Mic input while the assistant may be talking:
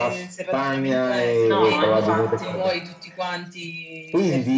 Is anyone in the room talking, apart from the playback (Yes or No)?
Yes